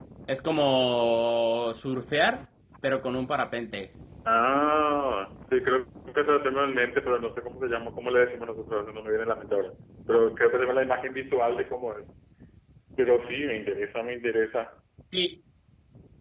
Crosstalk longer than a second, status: none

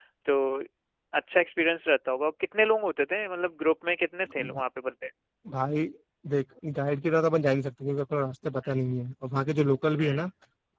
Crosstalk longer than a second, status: none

